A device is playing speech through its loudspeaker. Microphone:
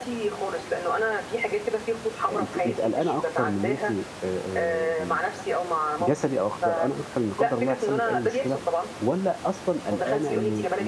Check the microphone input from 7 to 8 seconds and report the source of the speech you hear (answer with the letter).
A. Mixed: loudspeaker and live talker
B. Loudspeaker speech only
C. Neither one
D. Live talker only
A